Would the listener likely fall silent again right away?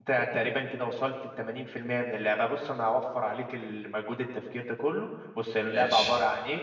Yes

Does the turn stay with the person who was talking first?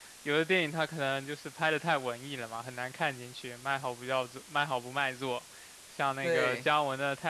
Yes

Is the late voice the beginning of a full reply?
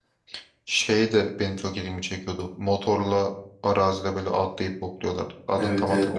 Yes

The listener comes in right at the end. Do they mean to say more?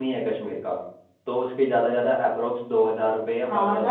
Yes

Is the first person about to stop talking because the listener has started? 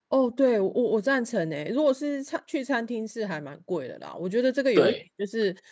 No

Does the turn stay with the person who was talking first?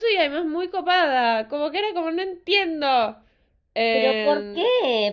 No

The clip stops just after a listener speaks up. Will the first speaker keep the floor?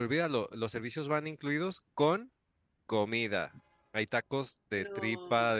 Yes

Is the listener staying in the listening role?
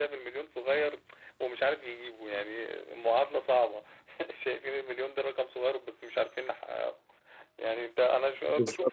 No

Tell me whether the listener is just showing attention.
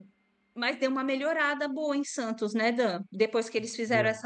Yes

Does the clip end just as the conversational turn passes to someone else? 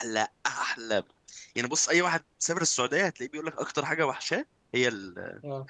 Yes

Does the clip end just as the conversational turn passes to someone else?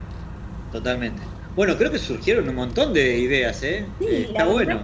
Yes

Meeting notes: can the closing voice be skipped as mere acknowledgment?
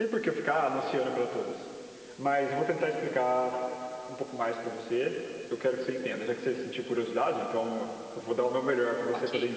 No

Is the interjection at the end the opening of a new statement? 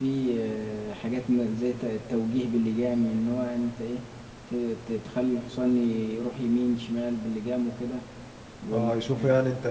Yes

